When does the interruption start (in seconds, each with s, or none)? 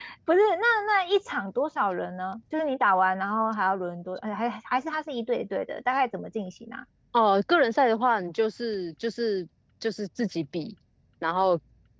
none